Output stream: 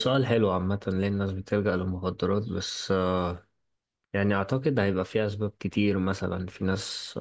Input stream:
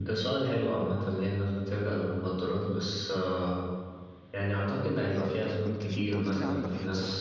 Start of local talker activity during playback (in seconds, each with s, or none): 5.1 s